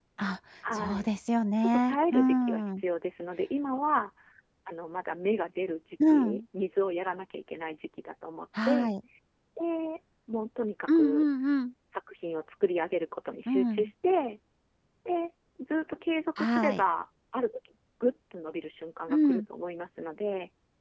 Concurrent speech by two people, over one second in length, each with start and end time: 1.6-2.8

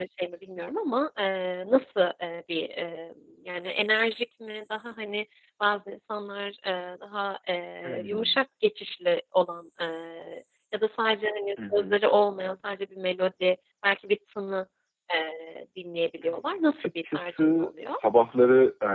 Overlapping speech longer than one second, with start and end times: 16.2-17.9

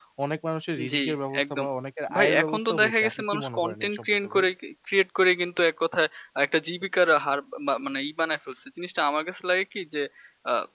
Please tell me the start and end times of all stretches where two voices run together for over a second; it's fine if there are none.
2.1-4.5

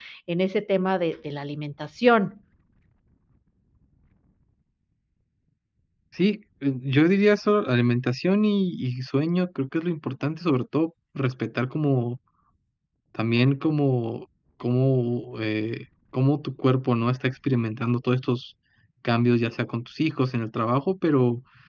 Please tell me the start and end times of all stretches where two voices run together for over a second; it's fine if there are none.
none

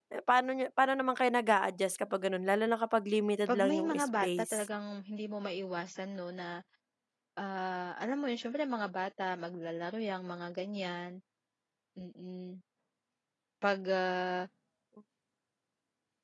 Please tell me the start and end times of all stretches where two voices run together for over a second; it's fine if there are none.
3.5-4.7

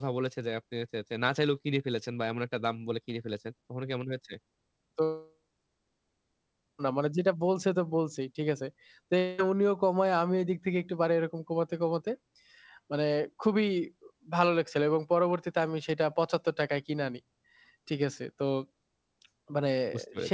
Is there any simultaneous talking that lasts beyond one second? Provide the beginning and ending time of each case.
none

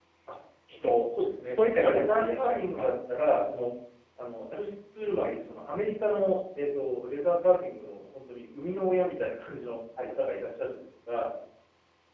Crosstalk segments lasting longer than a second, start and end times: 1.5-2.9

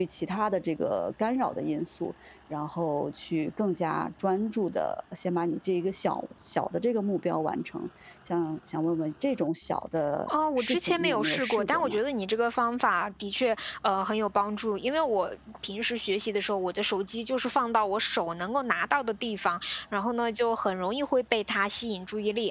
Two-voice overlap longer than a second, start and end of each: 10.6-12.0

